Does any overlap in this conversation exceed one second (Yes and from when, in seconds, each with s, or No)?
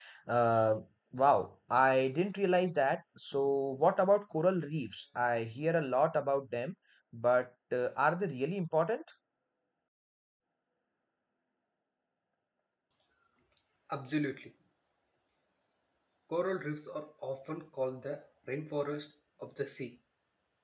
No